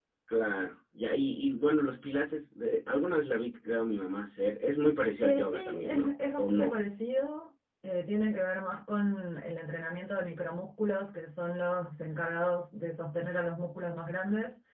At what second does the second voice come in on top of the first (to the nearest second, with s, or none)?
5 s